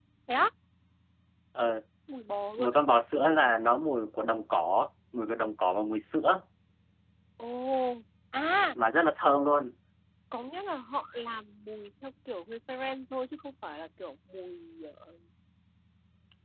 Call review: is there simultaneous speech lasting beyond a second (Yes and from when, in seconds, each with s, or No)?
No